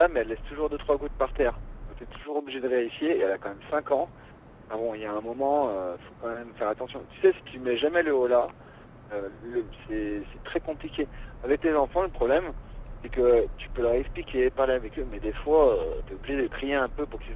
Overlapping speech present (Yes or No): No